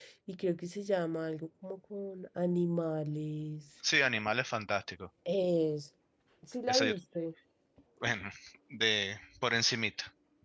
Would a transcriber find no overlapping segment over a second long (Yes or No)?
Yes